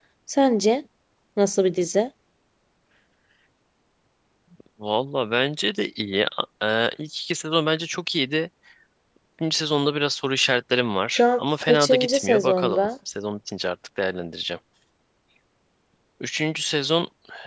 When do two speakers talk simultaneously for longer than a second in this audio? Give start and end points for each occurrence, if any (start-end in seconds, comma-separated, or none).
11.1-12.9